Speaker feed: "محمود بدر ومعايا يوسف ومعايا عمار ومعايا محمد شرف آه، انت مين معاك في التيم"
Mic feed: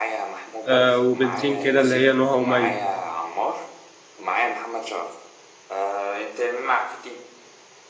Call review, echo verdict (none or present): present